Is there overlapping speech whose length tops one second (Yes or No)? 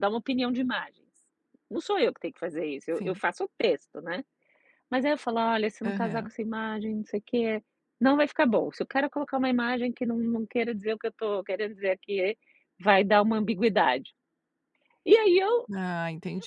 No